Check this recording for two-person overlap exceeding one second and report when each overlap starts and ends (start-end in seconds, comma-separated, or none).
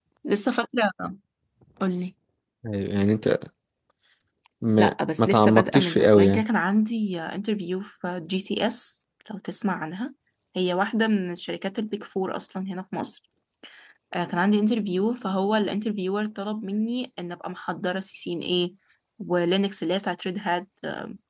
4.8-6.4